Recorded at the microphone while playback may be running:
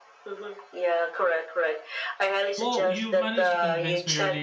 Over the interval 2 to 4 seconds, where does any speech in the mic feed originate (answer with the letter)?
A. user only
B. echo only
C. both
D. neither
C